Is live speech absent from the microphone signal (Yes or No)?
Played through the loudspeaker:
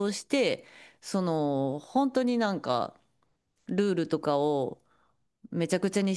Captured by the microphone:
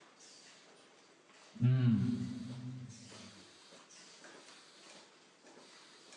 No